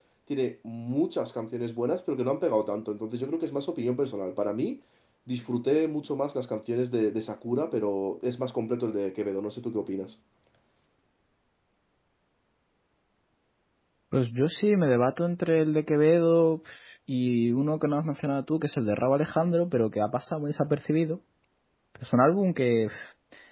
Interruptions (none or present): none